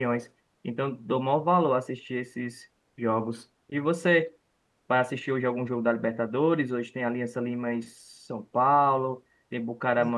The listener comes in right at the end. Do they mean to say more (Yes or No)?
No